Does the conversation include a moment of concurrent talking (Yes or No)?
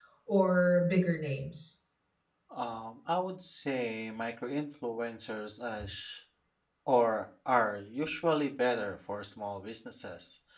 No